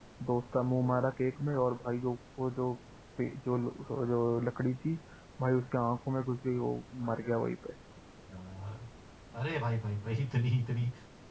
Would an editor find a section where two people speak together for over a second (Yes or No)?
No